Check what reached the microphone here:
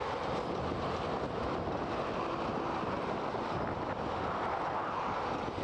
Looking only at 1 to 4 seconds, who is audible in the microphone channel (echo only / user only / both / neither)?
neither